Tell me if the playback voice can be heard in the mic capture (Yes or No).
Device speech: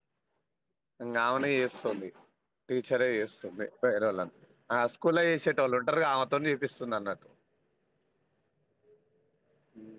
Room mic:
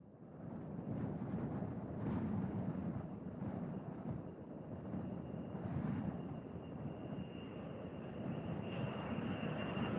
No